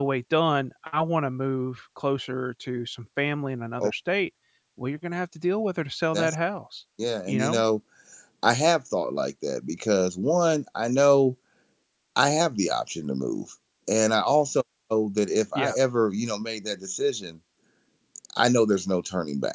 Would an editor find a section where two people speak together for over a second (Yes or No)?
No